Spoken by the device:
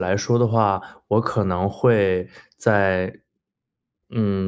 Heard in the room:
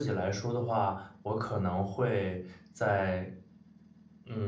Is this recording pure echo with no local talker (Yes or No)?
Yes